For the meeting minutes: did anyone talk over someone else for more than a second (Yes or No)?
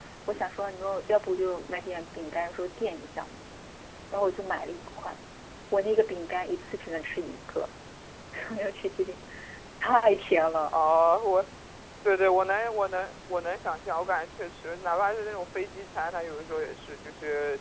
No